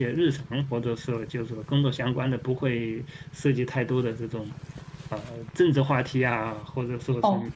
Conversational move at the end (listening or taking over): taking over